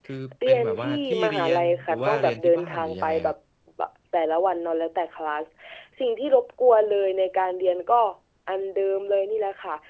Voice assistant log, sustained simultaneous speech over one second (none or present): present